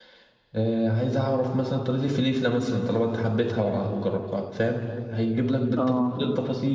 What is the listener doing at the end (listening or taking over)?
listening